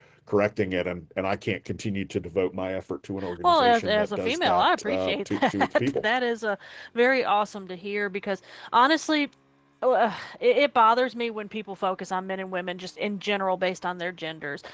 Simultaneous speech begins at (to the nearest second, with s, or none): 3 s